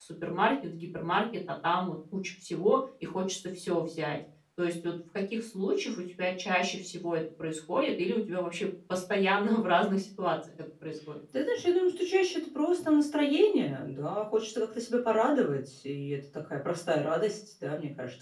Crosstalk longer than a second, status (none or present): none